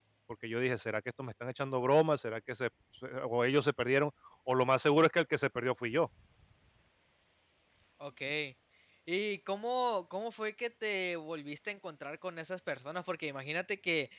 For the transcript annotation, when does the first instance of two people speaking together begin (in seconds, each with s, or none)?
none